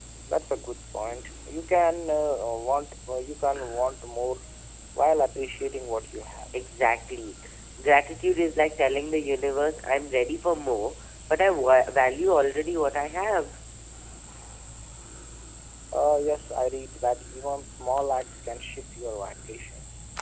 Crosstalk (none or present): none